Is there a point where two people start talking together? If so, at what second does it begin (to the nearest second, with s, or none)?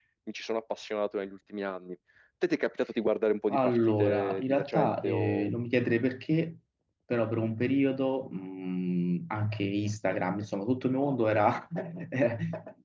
3 s